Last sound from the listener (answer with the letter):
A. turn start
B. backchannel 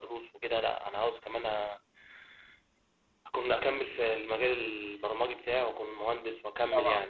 A